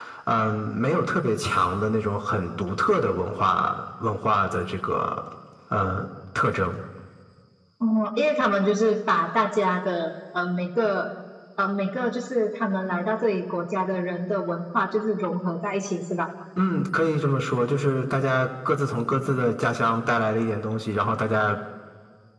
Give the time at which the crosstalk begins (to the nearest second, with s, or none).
none